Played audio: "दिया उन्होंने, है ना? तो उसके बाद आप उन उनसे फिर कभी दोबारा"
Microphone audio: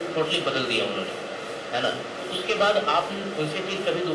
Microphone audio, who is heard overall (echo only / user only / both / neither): echo only